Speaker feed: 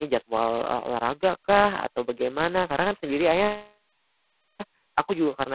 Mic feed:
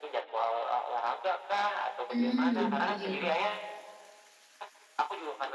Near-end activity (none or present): present